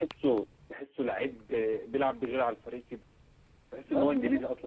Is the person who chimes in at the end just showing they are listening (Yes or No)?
Yes